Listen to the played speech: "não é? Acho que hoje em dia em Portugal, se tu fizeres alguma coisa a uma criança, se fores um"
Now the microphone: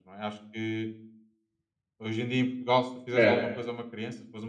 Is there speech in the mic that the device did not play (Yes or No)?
Yes